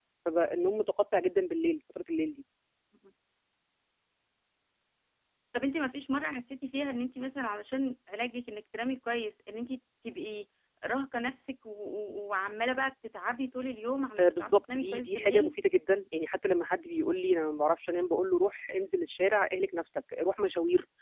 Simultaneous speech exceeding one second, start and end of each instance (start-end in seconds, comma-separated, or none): 14.2-15.5